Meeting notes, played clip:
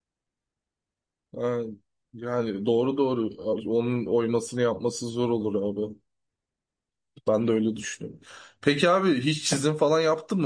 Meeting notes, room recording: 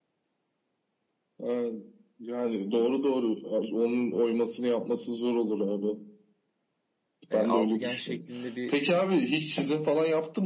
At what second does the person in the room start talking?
7.3 s

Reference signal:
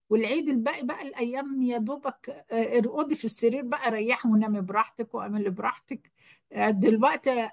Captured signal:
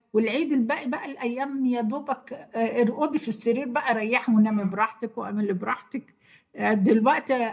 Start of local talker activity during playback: 4.4 s

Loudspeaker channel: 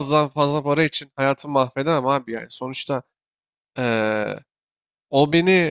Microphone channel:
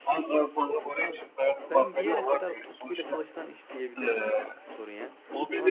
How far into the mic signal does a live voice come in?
1.0 s

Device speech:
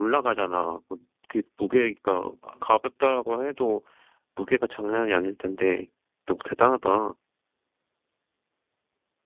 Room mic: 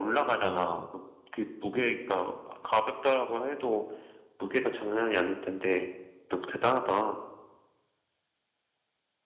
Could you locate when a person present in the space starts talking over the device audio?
0.4 s

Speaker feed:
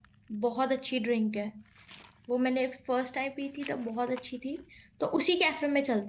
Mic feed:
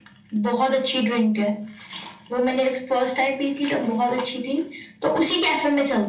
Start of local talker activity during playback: none

